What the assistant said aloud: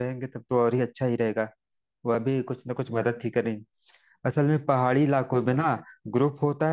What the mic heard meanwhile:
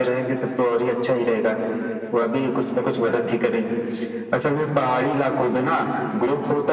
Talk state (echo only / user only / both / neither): echo only